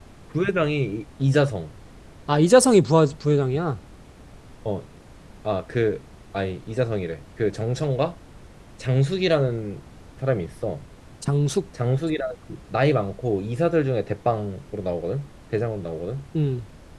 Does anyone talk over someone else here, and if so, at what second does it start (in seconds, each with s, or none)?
none